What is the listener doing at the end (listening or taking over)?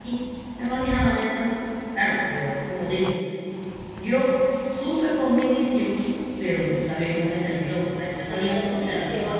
taking over